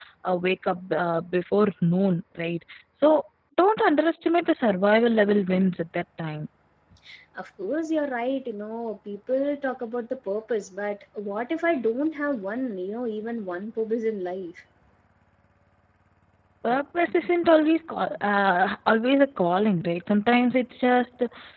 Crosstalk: none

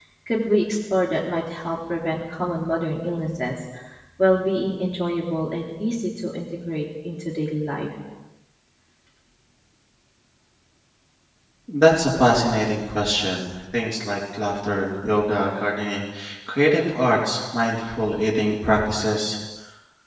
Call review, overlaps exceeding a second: none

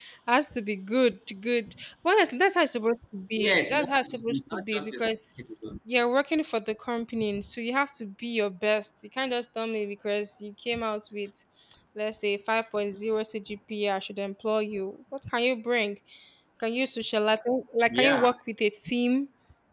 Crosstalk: present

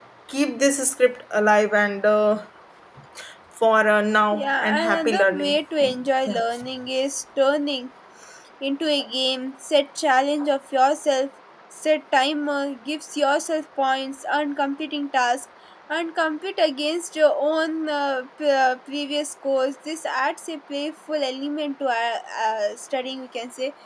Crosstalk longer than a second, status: present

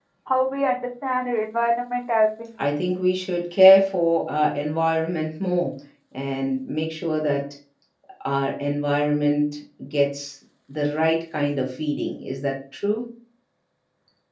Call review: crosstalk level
none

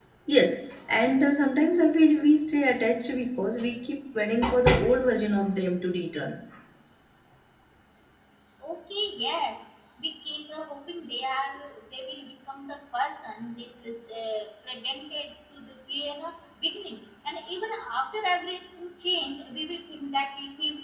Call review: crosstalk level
none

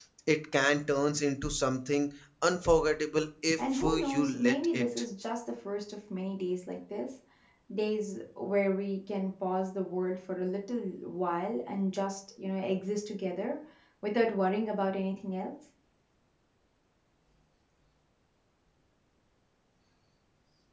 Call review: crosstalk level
present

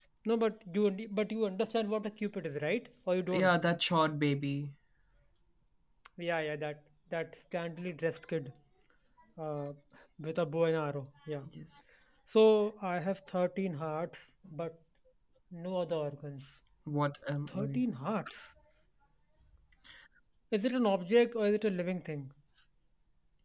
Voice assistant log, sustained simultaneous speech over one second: none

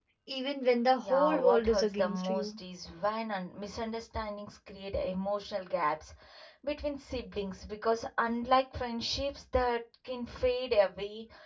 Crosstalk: present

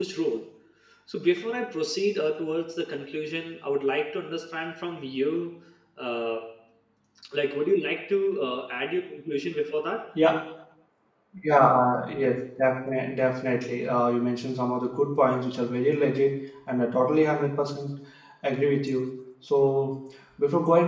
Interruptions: none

